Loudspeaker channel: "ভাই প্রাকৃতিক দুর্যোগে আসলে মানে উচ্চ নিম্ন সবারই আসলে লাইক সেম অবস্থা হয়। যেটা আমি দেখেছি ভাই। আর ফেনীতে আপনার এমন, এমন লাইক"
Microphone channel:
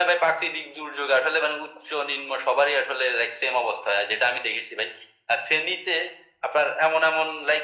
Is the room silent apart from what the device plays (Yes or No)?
Yes